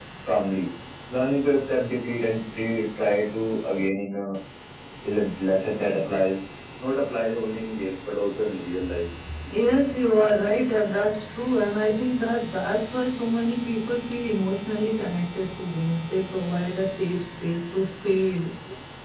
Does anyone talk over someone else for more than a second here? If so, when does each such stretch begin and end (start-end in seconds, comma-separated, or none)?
none